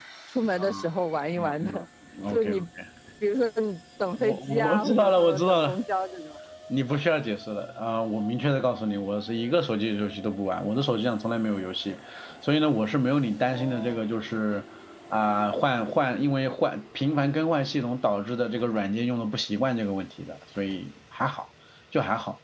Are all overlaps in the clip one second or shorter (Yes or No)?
No